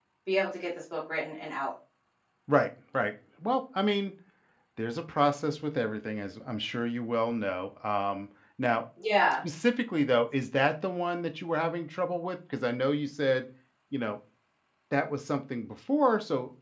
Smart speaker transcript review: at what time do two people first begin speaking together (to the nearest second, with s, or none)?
none